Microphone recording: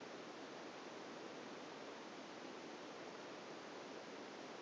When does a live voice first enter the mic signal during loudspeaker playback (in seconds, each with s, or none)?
none